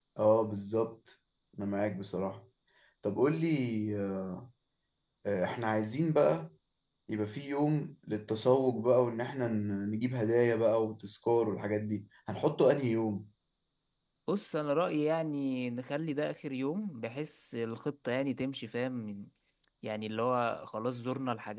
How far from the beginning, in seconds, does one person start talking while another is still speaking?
none

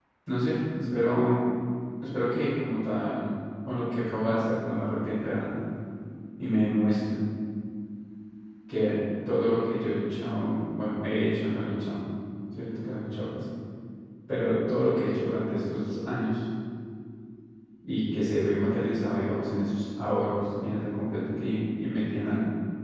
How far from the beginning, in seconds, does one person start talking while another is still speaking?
none

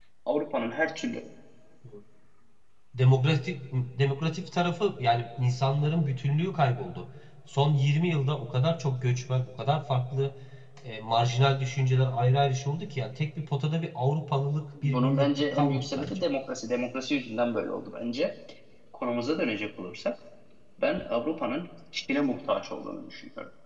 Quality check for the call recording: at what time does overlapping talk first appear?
14.8 s

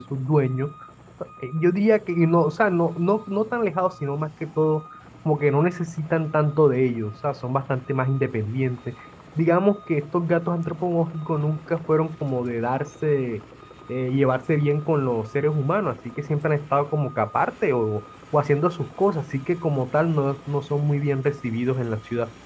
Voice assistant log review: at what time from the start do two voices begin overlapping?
none

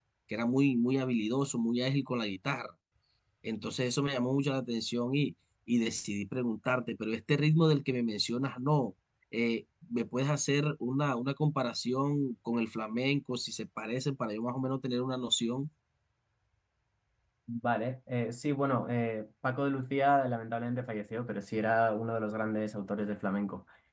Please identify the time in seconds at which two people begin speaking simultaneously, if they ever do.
none

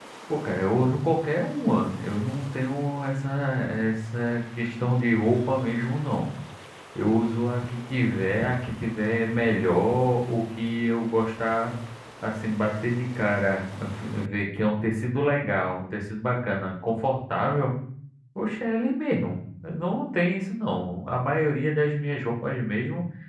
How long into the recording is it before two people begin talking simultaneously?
none

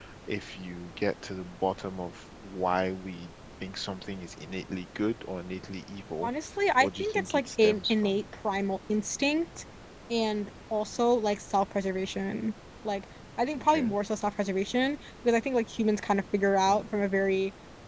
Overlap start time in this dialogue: 6.8 s

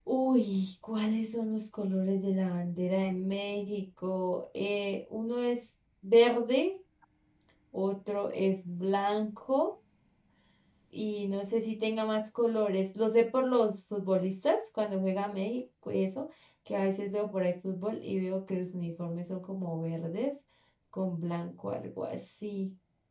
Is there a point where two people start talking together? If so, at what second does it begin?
none

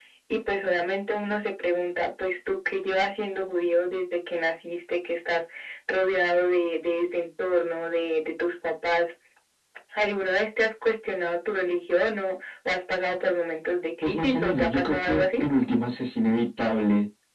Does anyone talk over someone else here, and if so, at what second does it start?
14.0 s

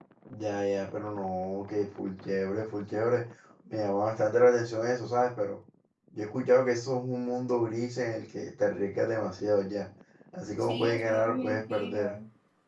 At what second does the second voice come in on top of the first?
10.6 s

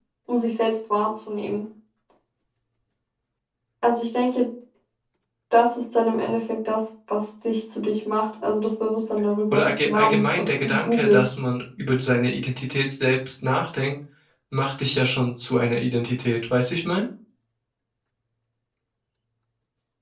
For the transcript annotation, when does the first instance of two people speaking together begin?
9.5 s

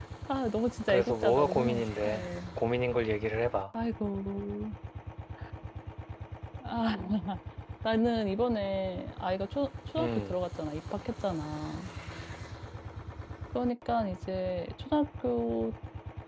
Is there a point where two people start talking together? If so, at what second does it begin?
0.9 s

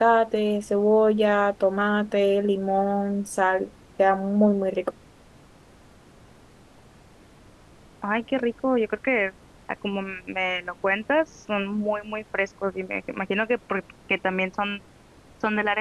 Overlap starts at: none

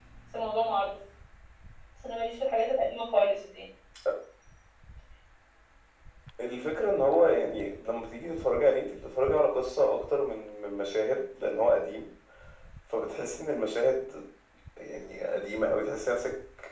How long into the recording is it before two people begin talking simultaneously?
none

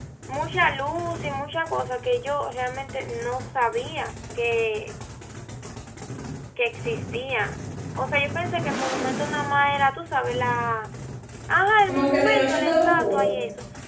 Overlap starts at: 11.9 s

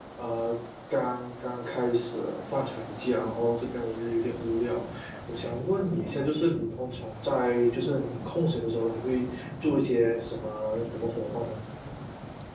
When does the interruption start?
none

